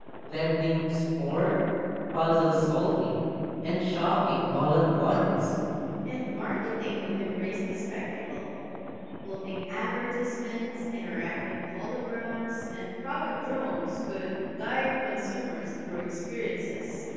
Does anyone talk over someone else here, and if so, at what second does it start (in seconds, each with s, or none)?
none